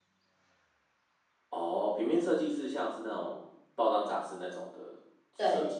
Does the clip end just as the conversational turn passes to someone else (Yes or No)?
Yes